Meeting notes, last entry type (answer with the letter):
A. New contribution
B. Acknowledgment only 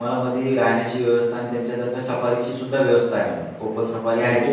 A